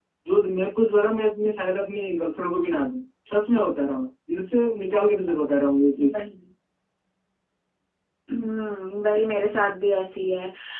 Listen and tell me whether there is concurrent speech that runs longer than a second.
No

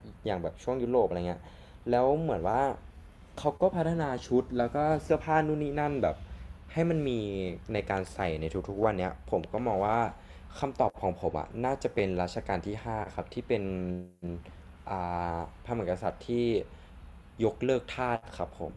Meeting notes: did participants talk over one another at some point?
No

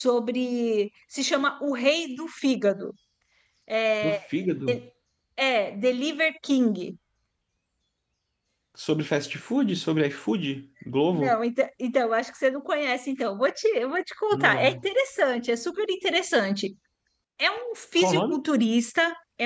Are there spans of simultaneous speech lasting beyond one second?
No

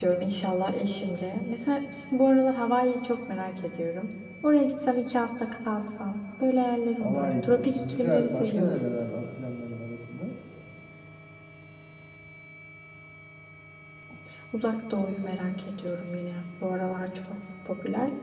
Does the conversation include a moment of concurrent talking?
Yes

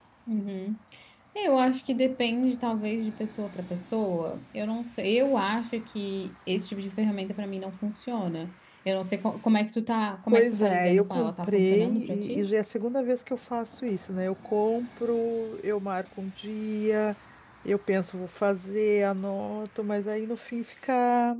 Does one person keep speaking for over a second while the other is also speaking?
Yes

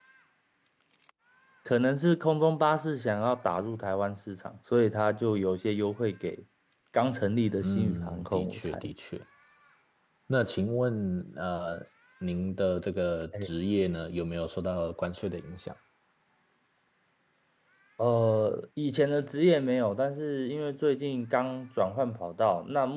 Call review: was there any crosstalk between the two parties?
Yes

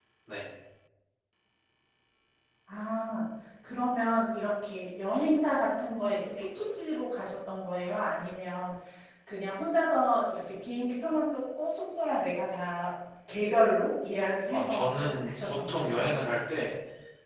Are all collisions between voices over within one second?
No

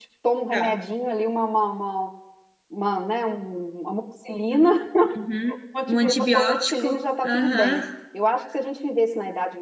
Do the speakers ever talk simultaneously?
Yes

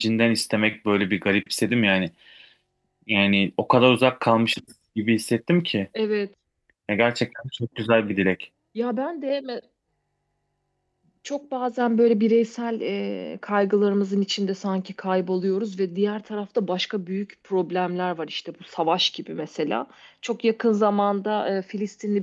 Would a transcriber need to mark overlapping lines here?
No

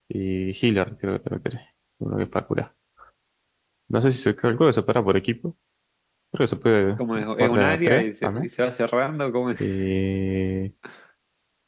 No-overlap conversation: No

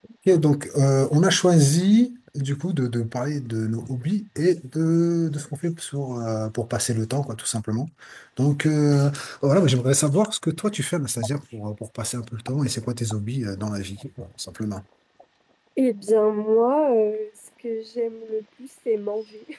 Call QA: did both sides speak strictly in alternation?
Yes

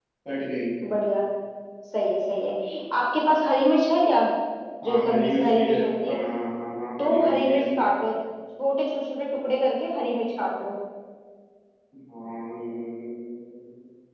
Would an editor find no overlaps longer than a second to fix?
No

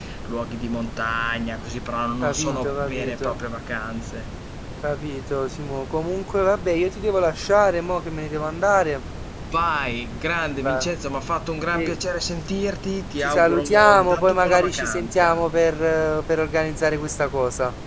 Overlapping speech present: Yes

